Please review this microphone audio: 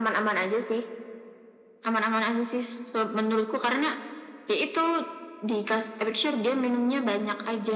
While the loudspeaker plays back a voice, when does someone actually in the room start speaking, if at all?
none

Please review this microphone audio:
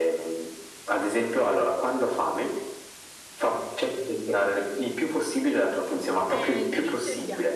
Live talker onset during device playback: 6.2 s

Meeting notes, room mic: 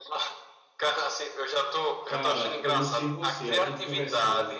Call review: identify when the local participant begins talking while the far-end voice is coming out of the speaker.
2.0 s

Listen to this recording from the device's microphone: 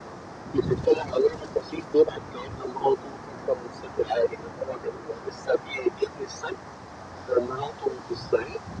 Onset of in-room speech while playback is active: none

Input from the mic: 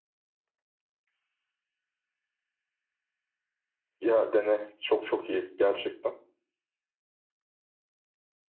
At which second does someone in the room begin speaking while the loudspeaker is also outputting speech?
4.0 s

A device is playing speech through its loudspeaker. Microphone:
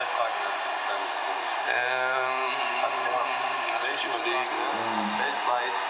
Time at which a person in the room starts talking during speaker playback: 4.6 s

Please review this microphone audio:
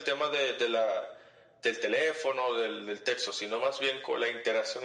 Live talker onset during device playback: none

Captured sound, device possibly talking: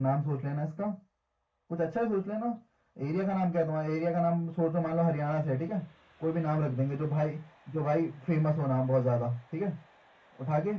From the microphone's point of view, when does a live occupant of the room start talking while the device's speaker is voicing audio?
none

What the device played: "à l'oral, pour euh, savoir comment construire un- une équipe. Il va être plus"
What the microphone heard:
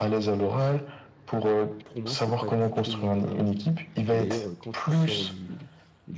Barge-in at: 1.9 s

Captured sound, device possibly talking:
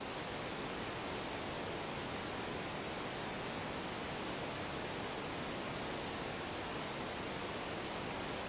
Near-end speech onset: none

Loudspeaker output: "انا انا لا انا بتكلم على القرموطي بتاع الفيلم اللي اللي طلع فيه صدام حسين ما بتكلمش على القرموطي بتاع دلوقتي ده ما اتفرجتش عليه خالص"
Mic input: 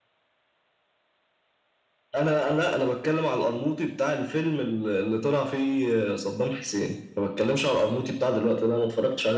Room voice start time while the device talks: none

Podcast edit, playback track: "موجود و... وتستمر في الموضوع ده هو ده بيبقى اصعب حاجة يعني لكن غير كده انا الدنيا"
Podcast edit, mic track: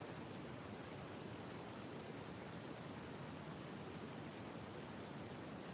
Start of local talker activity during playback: none

